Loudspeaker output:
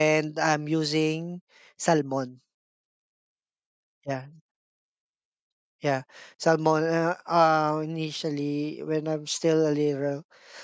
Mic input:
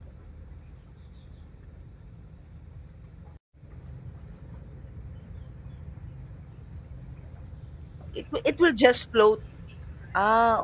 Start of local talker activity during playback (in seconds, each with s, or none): 8.1 s